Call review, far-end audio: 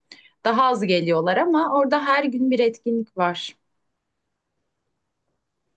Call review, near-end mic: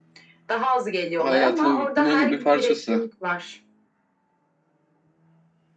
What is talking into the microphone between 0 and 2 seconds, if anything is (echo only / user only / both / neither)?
both